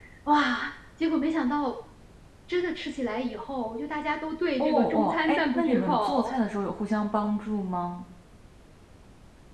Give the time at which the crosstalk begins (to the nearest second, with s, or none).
5 s